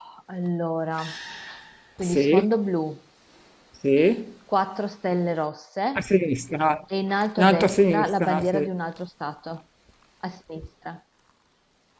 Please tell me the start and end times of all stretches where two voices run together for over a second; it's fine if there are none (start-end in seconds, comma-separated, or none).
7.4-8.7